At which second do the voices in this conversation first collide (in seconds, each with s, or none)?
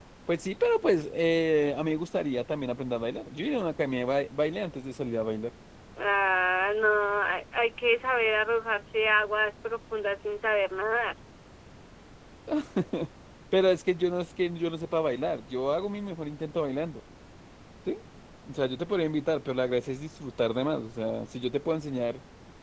none